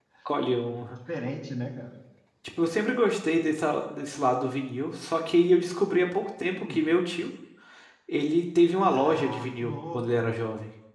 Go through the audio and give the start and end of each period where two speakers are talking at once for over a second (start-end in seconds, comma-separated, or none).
8.8-10.2